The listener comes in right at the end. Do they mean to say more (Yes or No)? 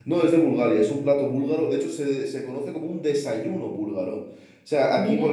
No